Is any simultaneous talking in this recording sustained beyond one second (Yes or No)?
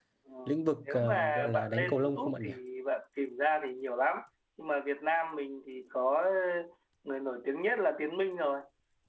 Yes